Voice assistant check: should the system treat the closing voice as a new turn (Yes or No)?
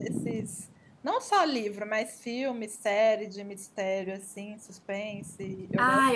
Yes